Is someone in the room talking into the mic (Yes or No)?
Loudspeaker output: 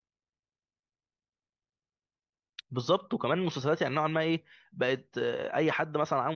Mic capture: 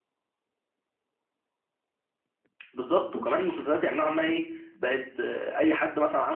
No